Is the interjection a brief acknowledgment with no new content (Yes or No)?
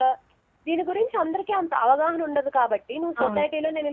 Yes